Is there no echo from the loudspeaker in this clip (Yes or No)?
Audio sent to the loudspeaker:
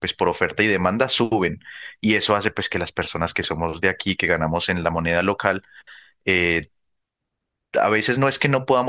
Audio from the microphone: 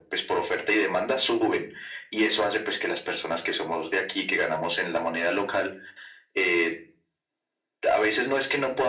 No